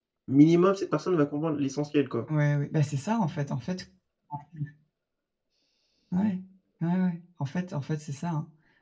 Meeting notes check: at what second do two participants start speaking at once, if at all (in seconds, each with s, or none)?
none